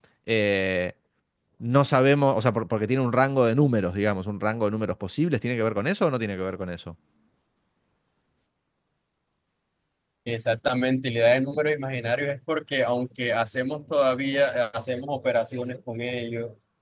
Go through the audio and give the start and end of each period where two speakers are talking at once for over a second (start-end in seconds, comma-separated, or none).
none